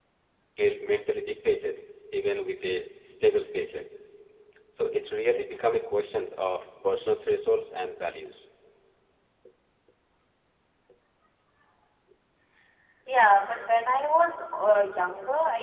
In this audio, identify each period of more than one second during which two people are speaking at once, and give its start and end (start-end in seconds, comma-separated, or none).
none